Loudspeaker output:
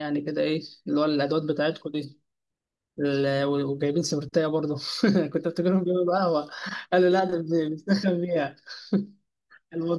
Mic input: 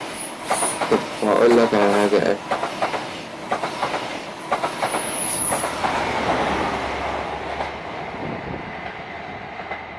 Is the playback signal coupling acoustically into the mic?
No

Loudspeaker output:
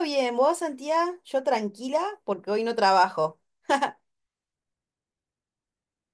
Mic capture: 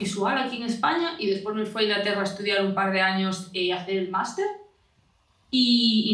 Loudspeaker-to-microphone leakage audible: No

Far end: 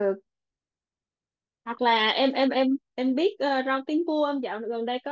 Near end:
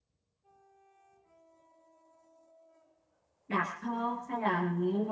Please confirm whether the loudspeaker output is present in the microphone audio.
No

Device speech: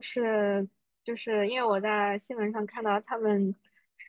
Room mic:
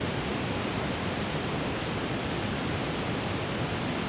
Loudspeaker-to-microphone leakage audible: No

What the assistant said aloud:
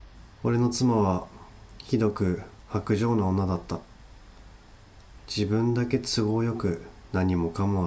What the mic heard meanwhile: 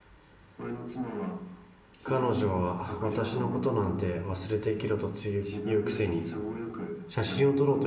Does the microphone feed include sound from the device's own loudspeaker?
Yes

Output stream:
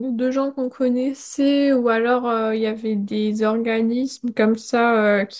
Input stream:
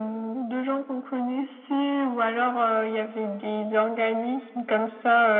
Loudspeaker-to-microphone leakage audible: Yes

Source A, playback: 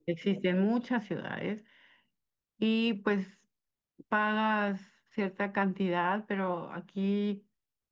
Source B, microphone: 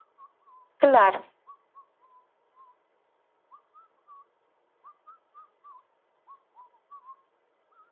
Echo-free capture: Yes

